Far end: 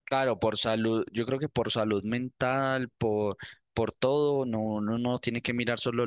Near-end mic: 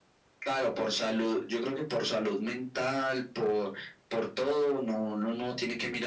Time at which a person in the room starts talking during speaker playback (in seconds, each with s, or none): none